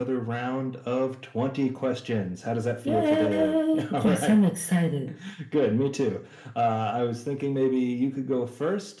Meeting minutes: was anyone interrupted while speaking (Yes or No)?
Yes